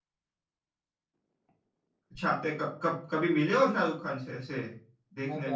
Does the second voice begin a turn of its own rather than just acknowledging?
Yes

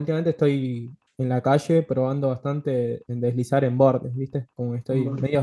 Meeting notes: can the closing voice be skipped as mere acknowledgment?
Yes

